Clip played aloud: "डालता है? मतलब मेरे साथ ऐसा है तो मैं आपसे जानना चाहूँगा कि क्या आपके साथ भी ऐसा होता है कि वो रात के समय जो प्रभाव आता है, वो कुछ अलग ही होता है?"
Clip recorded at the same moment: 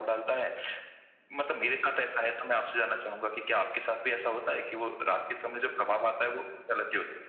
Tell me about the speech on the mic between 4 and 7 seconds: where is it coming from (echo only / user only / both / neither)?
echo only